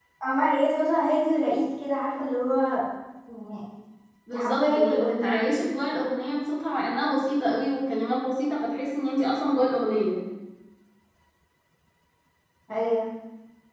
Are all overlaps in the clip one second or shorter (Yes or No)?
No